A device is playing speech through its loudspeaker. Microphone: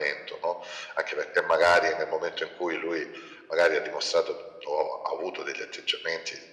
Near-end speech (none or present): none